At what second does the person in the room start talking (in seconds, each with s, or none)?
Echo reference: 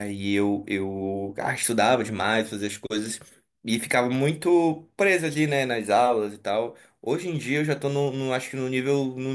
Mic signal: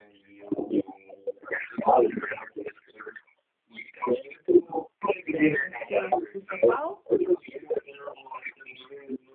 5.3 s